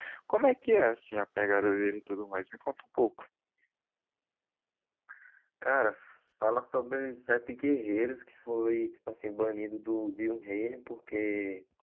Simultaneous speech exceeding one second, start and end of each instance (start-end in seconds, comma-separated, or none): none